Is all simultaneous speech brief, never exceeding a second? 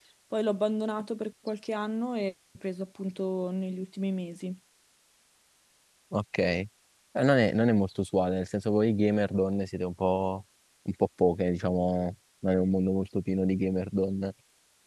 Yes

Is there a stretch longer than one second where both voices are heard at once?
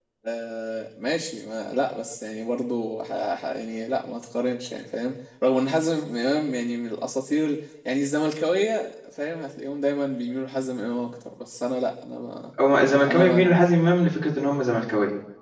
No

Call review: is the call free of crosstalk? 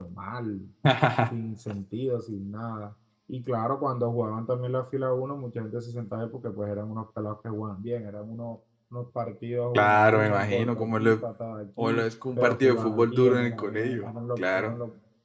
No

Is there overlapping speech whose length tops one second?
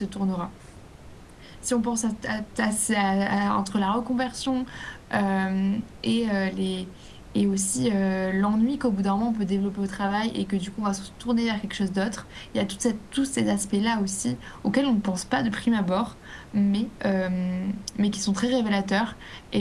No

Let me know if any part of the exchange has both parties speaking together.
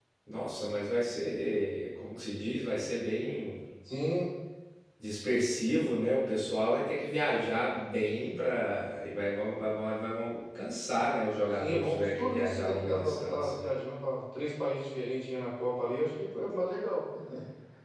Yes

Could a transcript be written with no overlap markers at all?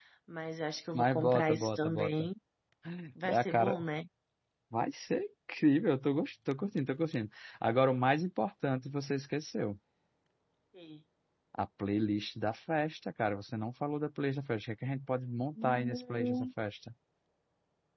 No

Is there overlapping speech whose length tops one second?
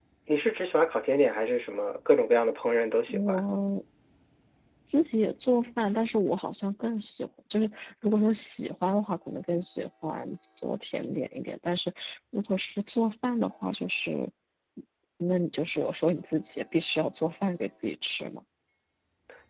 No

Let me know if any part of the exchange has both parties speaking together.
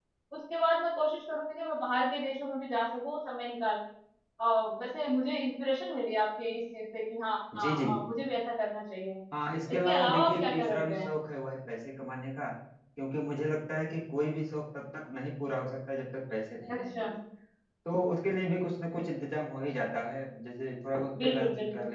Yes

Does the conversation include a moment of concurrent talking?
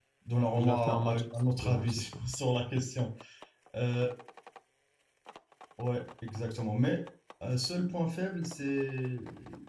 Yes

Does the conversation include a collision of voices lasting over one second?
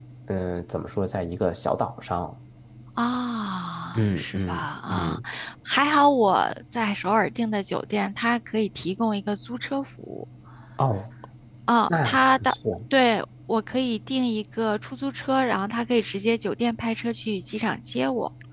Yes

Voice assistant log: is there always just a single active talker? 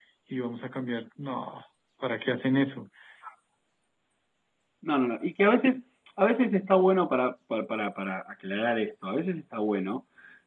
Yes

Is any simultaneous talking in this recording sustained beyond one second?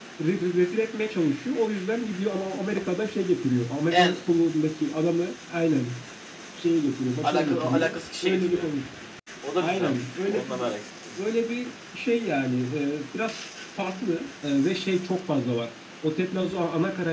Yes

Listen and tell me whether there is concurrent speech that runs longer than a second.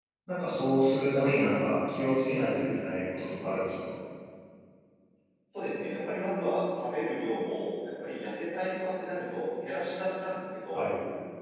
No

